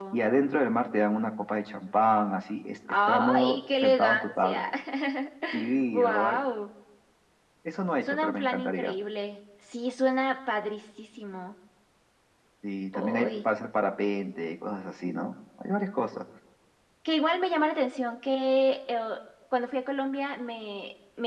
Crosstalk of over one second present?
Yes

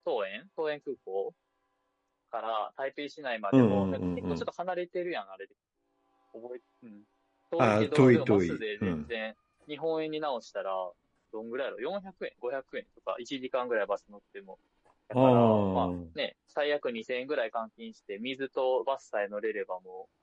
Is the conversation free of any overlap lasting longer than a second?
No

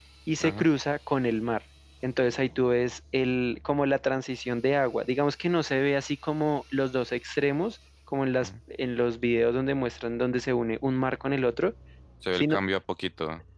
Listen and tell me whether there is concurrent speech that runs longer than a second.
No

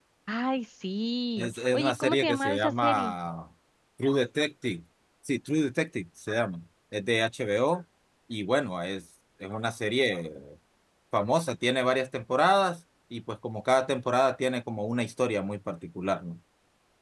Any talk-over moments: Yes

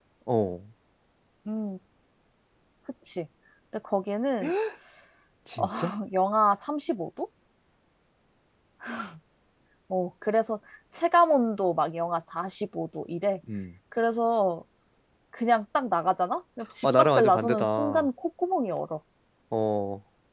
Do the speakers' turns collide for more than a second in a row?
Yes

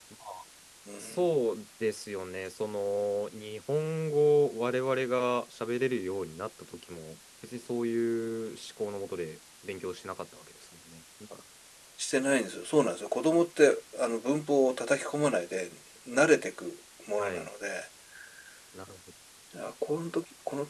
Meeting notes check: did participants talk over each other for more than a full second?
No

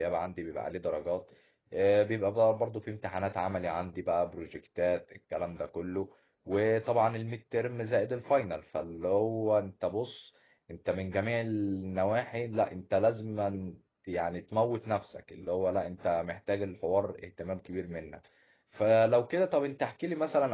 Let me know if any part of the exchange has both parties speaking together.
No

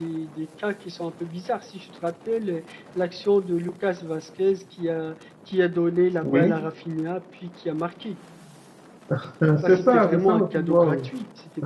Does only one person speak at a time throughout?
No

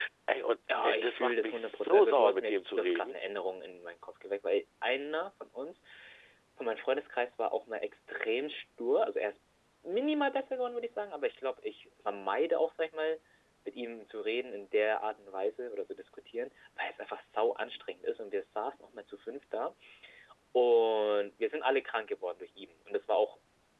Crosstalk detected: Yes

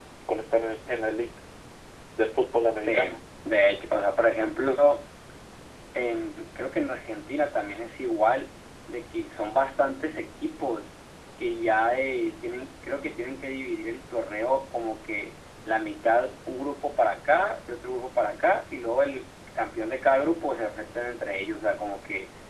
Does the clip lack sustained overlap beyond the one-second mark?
Yes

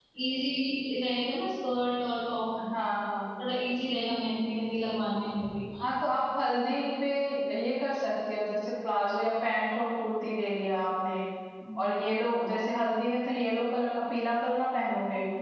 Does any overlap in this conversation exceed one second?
No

